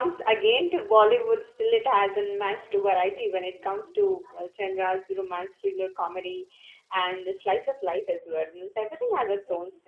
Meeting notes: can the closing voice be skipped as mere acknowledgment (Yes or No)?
No